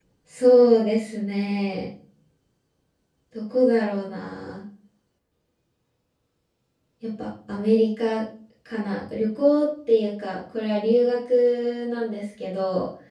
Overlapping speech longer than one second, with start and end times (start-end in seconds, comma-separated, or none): none